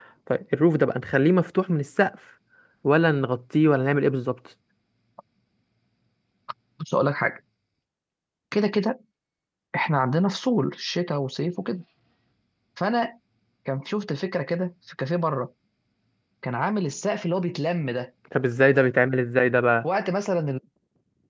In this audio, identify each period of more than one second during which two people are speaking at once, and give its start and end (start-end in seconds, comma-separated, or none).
none